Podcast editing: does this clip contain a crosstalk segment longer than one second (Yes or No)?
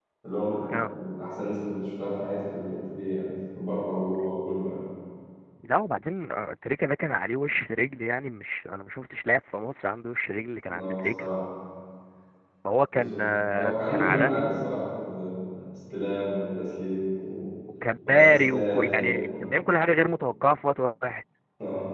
Yes